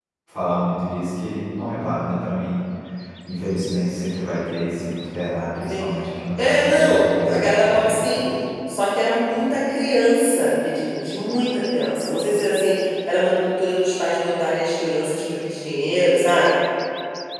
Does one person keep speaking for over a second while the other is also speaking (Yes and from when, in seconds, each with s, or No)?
Yes, from 6.4 s